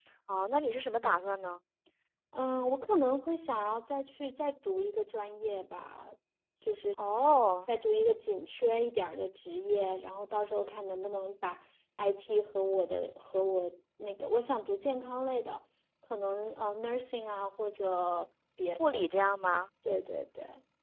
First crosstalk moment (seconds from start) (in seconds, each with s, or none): none